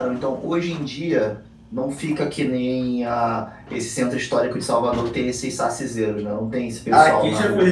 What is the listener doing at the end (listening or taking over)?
taking over